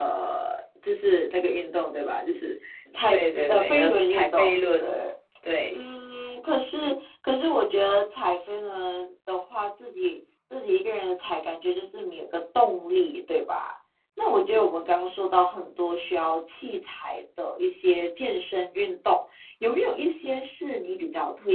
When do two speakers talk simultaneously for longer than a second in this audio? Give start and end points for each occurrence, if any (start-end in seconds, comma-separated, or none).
3.1-4.8